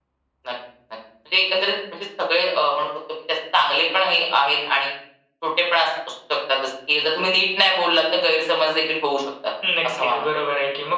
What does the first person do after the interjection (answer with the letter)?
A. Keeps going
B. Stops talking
B